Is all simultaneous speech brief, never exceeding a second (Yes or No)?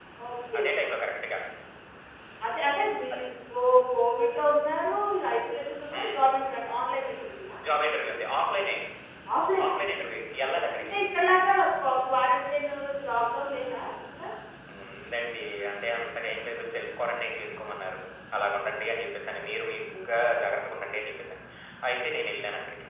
Yes